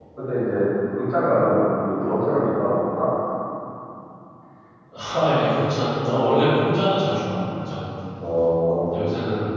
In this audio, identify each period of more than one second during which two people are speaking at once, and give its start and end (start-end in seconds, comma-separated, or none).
none